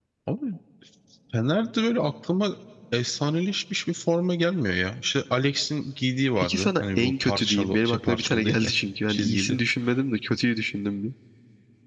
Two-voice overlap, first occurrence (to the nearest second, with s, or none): 6 s